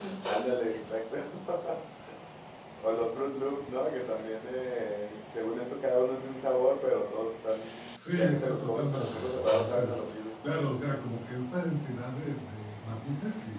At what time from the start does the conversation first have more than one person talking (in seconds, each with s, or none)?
8.2 s